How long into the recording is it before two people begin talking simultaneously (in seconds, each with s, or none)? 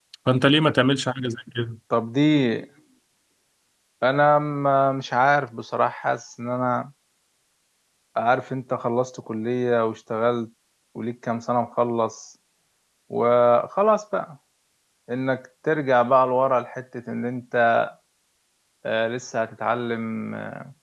none